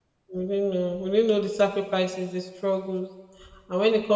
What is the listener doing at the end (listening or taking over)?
listening